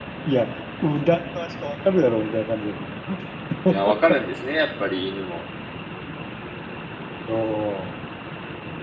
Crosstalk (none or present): none